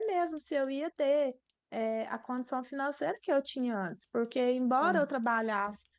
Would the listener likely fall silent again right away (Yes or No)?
Yes